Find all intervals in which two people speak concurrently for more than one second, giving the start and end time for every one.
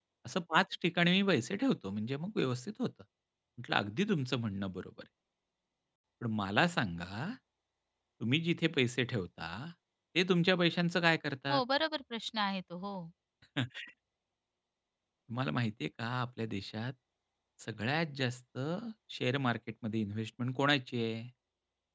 none

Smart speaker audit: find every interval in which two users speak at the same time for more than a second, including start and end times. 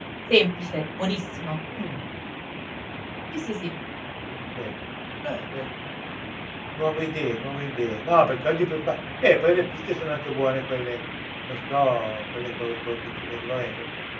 none

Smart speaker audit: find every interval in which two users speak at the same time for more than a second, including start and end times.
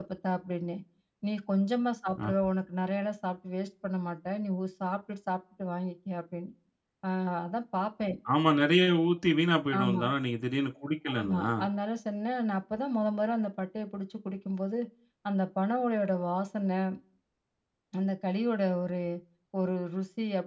none

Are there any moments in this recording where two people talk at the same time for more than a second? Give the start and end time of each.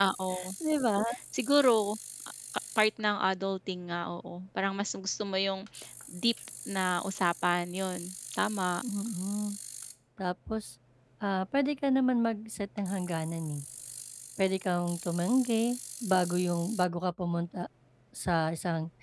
none

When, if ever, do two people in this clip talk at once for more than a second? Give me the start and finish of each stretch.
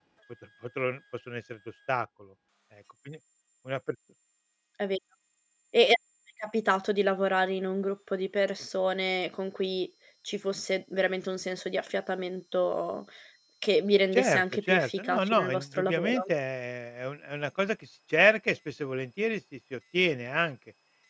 14.1-16.2

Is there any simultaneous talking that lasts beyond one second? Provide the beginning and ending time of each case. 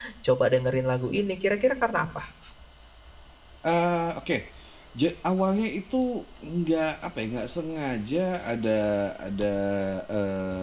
none

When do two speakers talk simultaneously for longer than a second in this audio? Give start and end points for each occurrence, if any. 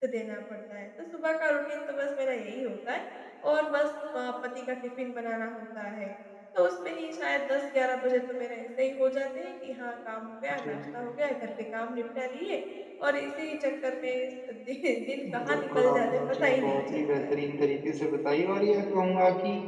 15.3-17.3

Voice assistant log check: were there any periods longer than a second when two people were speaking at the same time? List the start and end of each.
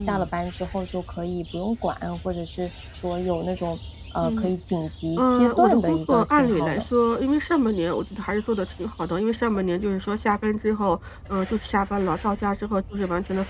5.2-6.9

